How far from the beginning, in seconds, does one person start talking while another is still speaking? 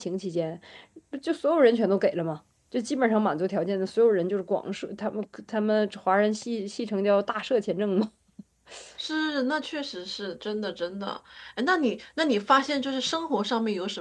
none

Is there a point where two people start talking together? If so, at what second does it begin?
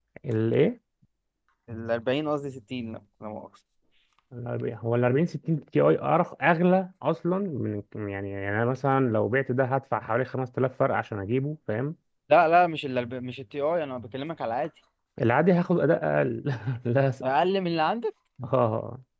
none

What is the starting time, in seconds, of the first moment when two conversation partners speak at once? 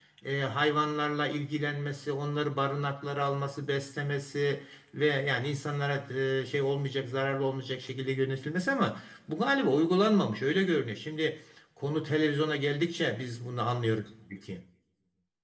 none

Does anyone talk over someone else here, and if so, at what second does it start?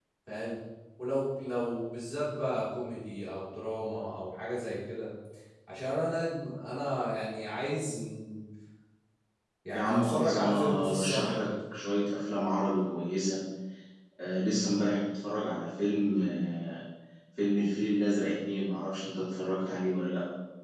9.7 s

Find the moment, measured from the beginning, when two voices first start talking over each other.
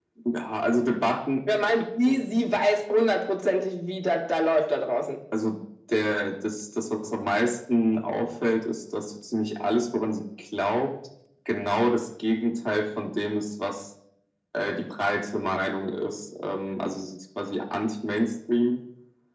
none

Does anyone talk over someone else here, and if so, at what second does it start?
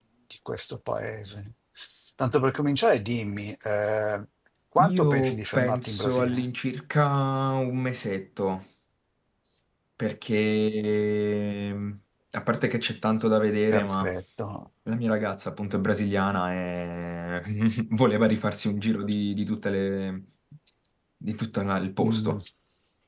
4.8 s

